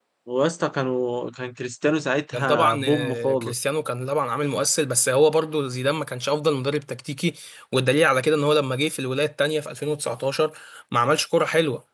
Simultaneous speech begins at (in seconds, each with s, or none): 2.3 s